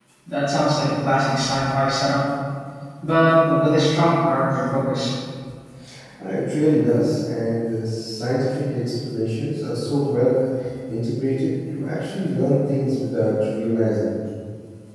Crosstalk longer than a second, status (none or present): none